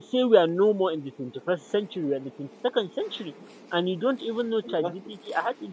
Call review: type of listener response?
listening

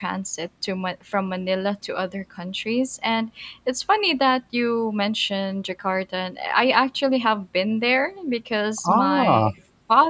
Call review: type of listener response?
listening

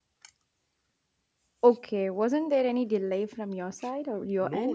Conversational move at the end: taking over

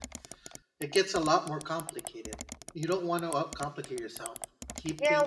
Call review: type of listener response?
taking over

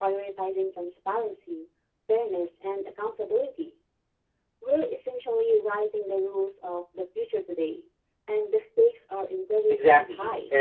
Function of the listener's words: taking over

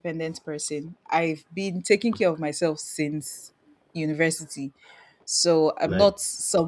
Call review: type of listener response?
listening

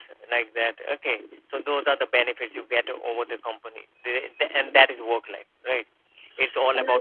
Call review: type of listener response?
taking over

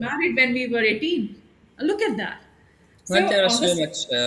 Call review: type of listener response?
taking over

